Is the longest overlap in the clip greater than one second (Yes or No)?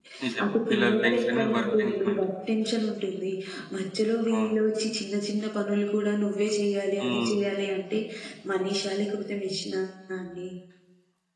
Yes